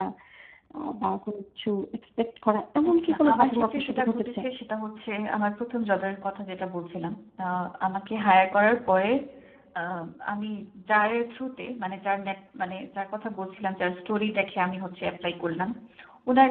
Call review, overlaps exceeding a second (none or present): present